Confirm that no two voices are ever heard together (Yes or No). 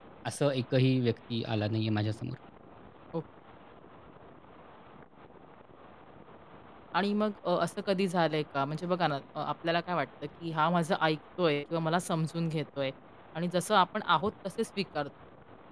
Yes